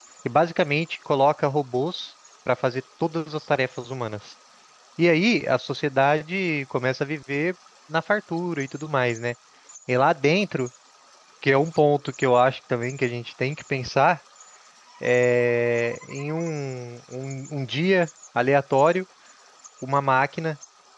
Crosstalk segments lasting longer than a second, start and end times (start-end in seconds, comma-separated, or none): none